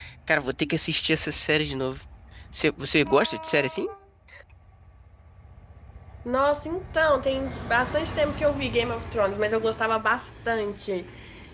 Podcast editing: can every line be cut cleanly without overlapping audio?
Yes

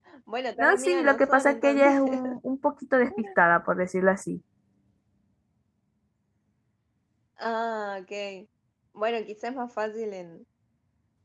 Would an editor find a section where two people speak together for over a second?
Yes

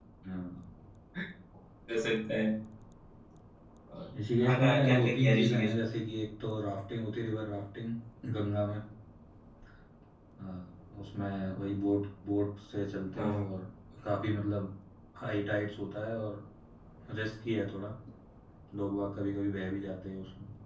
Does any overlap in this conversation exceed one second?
Yes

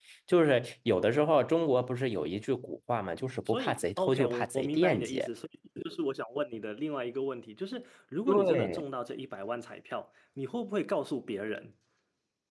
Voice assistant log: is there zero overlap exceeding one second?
No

